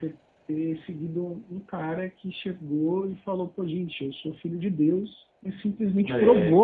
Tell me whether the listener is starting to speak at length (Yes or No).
No